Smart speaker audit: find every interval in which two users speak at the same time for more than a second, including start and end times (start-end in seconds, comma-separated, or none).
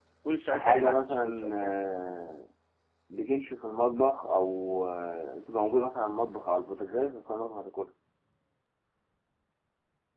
0.5-1.7